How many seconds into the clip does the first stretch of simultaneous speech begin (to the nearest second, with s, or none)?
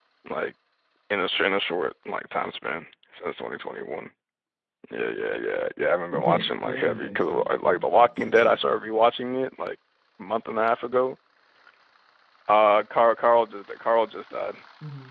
6 s